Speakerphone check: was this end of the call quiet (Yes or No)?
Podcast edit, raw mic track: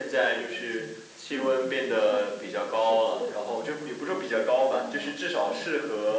No